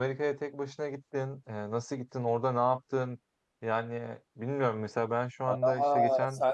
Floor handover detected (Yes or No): Yes